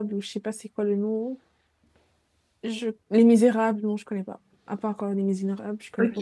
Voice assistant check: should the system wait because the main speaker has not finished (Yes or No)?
No